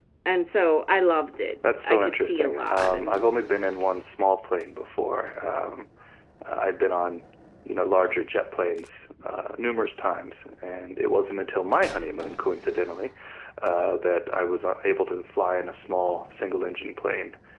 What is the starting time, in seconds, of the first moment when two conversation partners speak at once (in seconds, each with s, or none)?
1.6 s